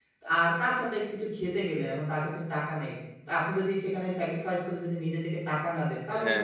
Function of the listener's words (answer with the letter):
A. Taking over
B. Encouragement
A